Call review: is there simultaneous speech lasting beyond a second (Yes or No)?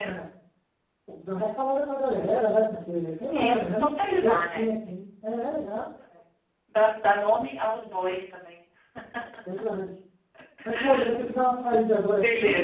Yes